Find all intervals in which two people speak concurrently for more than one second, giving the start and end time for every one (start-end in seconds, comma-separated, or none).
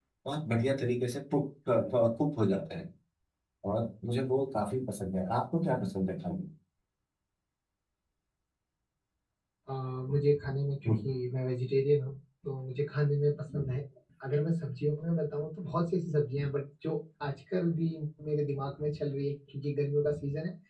none